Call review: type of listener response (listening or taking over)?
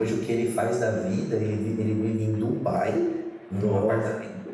listening